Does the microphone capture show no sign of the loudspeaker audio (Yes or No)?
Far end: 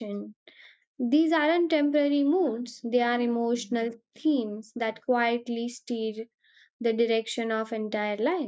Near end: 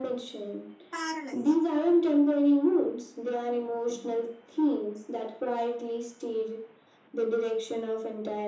No